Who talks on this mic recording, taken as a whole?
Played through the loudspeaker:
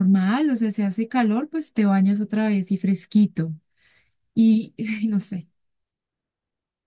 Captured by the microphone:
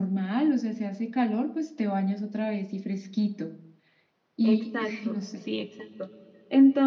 both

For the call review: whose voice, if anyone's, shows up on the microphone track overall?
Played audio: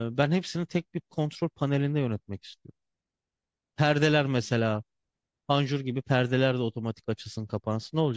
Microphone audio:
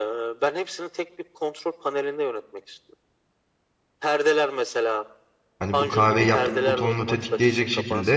both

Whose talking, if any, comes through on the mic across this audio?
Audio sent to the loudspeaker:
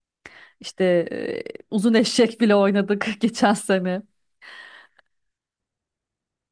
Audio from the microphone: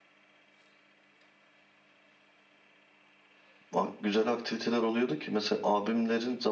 user only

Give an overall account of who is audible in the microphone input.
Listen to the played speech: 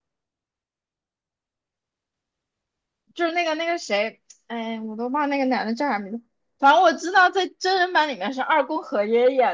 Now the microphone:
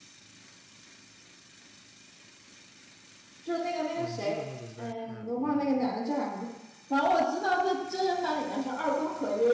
both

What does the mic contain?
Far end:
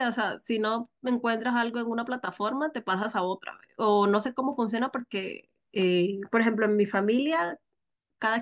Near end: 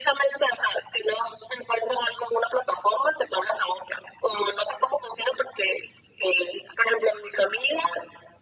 echo only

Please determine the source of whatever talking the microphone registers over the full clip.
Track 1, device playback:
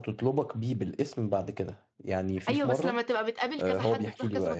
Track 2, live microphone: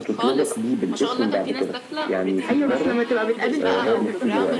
both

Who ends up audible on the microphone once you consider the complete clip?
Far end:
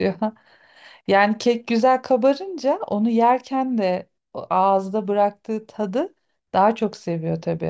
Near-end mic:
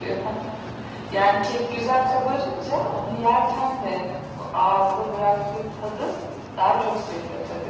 echo only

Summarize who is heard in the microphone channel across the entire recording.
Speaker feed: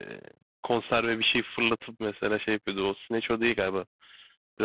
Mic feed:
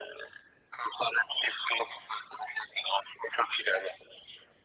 echo only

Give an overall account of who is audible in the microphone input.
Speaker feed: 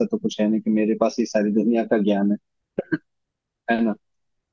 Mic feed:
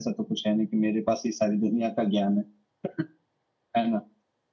echo only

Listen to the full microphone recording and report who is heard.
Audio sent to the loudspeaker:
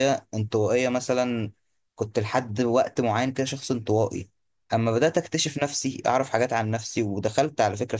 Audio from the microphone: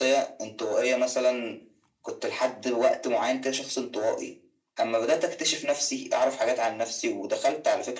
echo only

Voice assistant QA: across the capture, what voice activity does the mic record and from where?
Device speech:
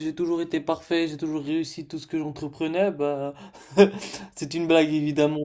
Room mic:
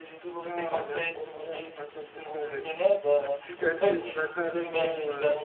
both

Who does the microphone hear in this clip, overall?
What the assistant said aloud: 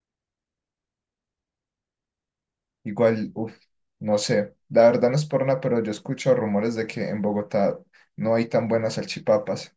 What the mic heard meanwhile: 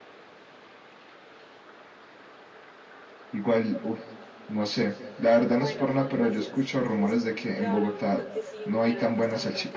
both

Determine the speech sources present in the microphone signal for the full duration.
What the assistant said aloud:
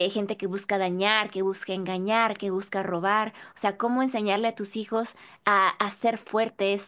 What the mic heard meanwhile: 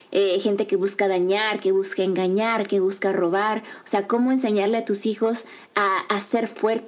echo only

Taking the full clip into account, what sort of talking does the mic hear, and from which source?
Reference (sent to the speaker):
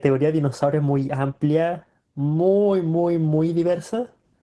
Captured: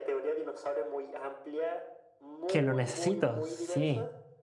both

